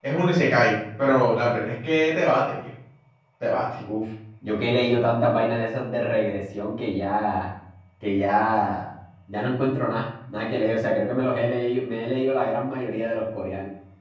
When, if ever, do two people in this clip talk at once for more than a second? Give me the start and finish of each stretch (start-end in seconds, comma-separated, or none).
none